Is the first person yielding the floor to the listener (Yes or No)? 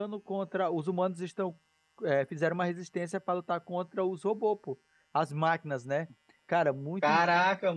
Yes